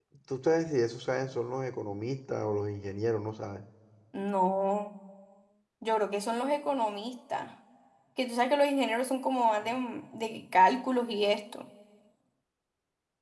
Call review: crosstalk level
none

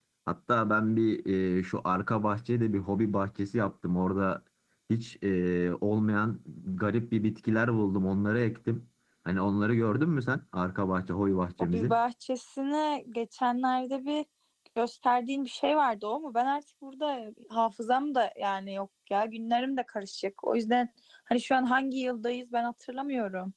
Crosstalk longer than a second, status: none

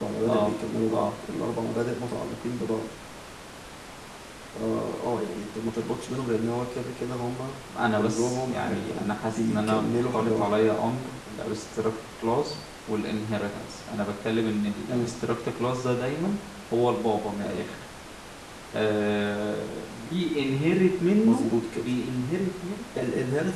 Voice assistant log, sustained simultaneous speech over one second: present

